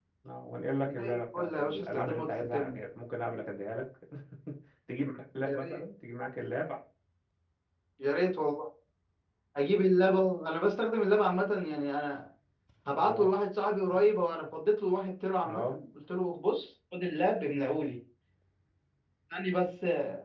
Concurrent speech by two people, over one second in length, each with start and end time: 0.9-2.8

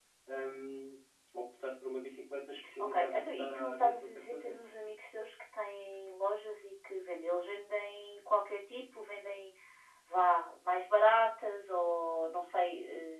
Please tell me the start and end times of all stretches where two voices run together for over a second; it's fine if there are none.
2.8-4.6

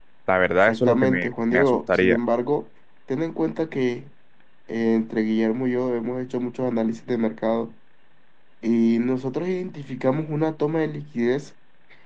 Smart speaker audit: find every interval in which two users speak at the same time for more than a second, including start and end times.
0.7-2.2

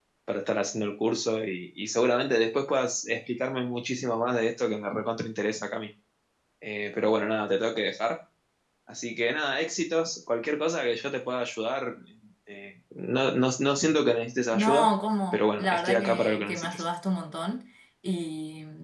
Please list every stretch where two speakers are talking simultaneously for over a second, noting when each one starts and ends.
15.3-16.8

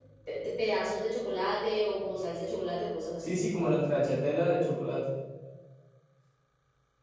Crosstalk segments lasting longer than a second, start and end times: none

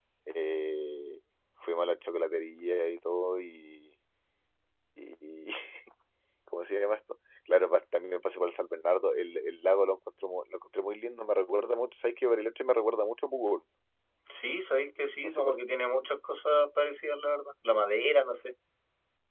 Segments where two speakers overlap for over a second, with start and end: none

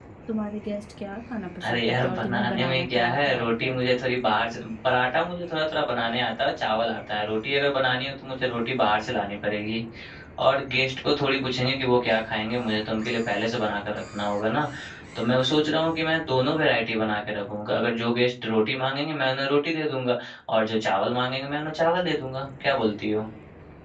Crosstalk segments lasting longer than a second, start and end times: 1.6-3.8

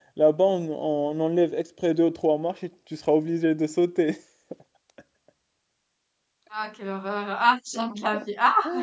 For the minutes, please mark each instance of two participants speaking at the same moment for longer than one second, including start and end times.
none

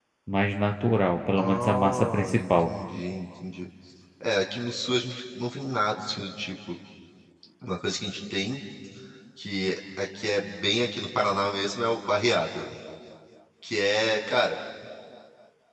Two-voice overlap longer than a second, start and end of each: 1.4-2.7

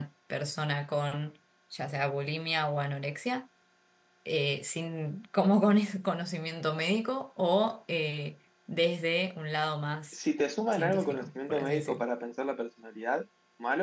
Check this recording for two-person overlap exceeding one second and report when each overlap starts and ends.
10.7-12.0

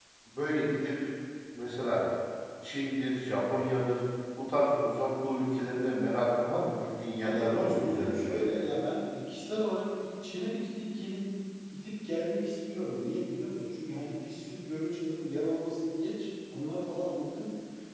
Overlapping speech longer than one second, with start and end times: 7.2-8.4

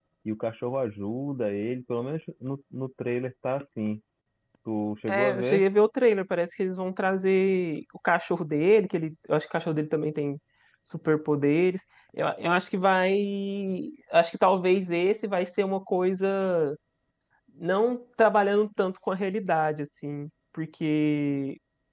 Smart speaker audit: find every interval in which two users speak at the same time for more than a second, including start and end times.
none

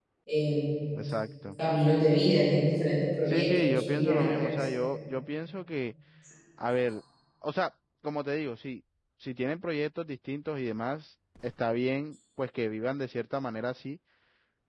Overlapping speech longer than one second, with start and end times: 3.3-4.7

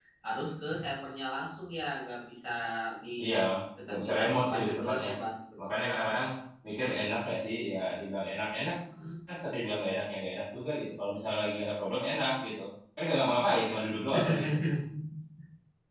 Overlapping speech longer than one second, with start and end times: 3.9-5.1

